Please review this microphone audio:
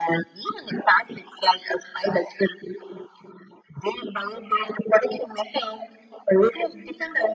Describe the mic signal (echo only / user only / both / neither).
echo only